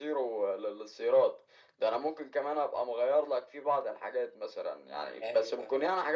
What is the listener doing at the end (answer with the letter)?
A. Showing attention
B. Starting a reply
A